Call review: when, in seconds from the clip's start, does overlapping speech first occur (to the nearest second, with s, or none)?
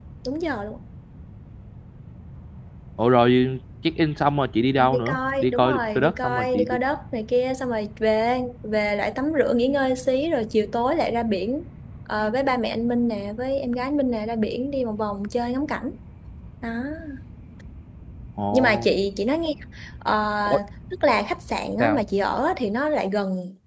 5 s